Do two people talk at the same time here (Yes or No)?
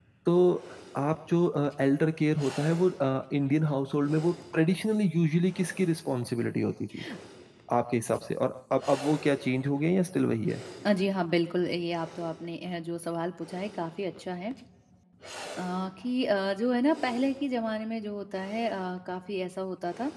No